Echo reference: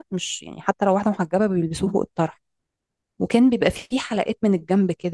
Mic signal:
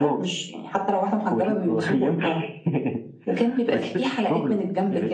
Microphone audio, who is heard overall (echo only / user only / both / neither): both